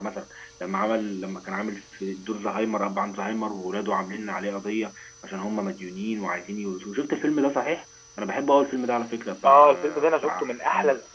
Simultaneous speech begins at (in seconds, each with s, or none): 9.4 s